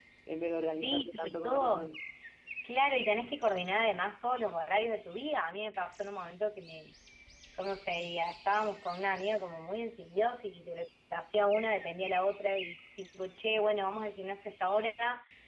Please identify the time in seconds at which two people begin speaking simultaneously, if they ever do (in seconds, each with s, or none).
0.7 s